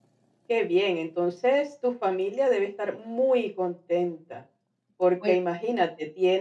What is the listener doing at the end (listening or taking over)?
listening